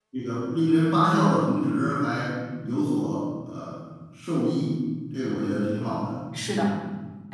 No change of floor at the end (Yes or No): No